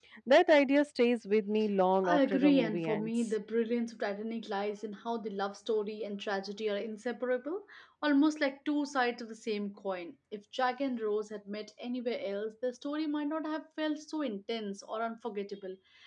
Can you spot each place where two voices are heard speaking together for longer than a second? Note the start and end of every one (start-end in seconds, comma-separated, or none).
2.0-3.3